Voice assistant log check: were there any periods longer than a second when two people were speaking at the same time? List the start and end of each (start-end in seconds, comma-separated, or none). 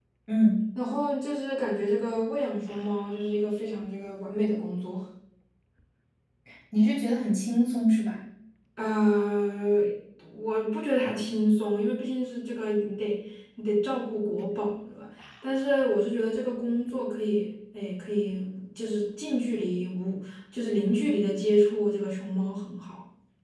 none